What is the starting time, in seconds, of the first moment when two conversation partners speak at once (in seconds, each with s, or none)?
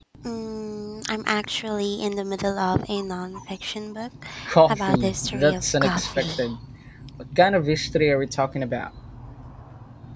4.7 s